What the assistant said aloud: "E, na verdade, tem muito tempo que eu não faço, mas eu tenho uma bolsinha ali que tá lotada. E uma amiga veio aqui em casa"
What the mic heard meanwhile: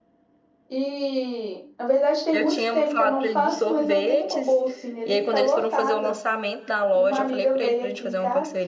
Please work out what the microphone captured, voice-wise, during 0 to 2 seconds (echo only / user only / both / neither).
echo only